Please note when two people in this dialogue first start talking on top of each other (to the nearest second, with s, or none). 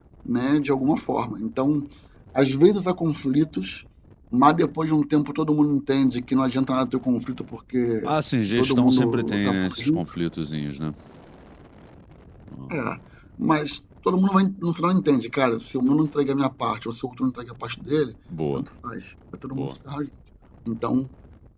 9 s